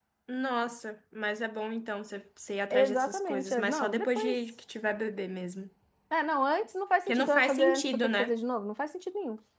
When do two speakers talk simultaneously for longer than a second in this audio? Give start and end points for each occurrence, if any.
2.7-4.4, 7.1-8.3

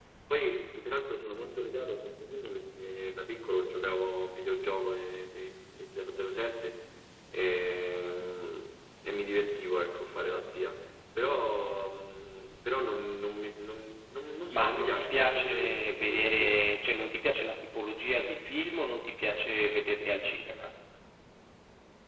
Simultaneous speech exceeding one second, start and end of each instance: 14.5-16.7

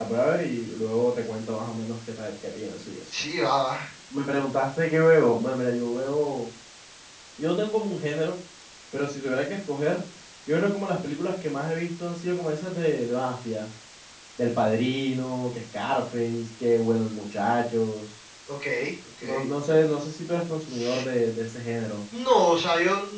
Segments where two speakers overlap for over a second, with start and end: none

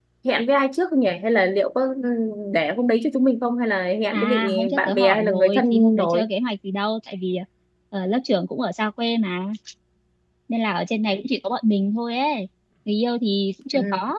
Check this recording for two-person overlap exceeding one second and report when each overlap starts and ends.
4.1-6.3

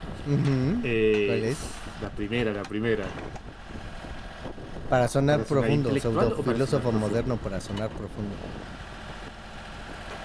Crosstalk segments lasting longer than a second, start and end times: 5.3-7.3

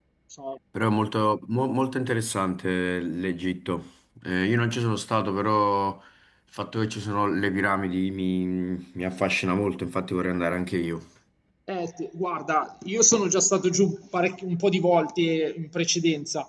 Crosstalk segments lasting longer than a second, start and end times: none

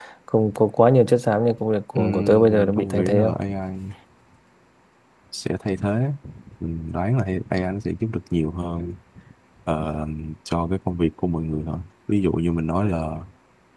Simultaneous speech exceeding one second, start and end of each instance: 1.9-3.4

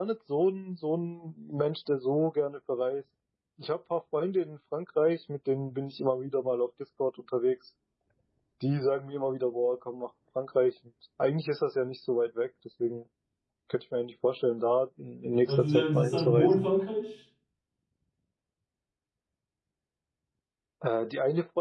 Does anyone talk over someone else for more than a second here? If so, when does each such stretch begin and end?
15.4-16.7

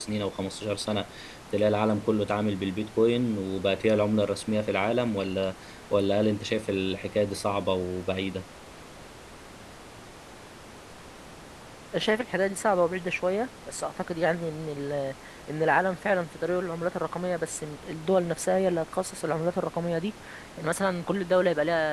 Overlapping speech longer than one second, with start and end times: none

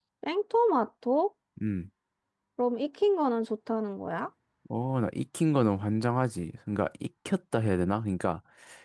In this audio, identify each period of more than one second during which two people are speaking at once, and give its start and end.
none

